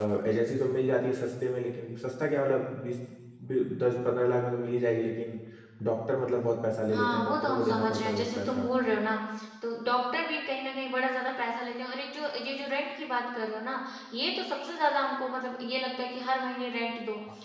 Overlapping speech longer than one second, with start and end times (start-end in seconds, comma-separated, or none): 6.9-8.7